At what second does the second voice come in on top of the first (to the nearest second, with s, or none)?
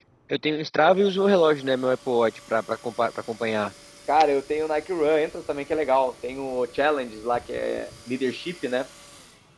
none